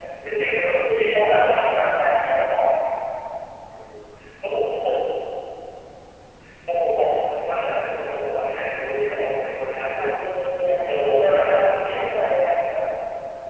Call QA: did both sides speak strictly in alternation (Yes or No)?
No